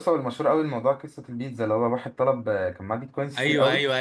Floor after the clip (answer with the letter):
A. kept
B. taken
B